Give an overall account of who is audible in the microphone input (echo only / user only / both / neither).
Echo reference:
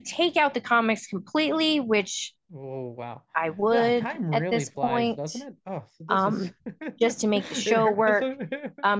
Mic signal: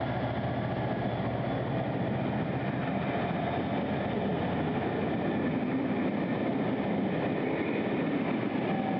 neither